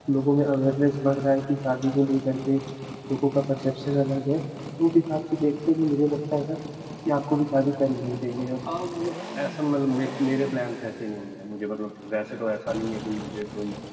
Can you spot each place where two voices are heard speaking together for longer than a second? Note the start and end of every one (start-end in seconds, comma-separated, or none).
none